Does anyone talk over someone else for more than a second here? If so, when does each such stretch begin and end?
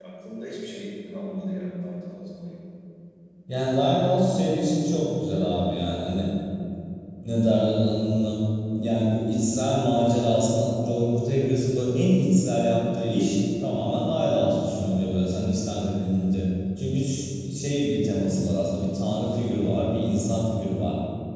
none

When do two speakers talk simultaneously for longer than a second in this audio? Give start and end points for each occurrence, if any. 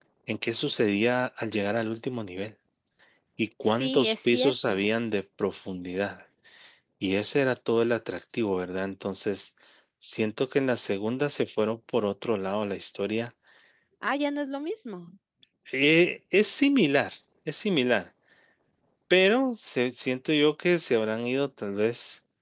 3.6-4.8

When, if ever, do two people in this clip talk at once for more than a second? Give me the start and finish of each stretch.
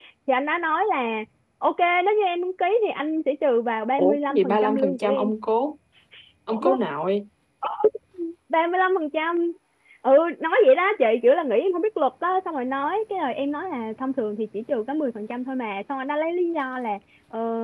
4.0-5.3

